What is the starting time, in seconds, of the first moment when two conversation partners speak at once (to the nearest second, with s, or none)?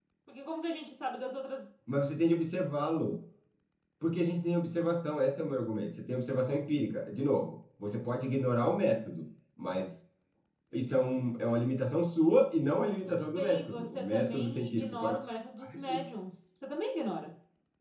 13 s